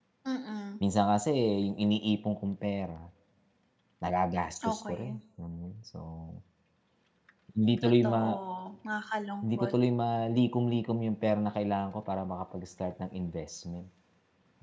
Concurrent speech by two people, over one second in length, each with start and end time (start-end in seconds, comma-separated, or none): none